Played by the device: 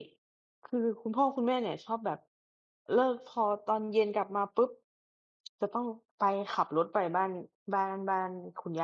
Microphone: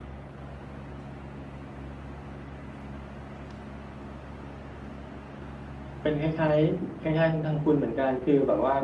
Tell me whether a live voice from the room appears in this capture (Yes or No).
Yes